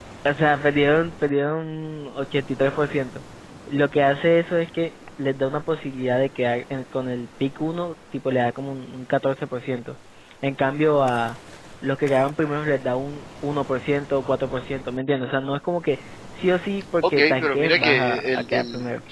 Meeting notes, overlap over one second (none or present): present